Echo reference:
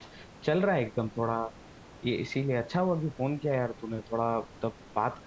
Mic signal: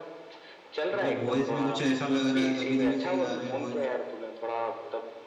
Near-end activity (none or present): present